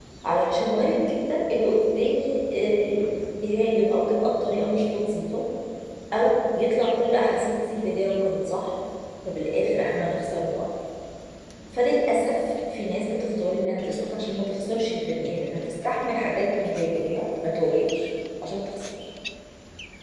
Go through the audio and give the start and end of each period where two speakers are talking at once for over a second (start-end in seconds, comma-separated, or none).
none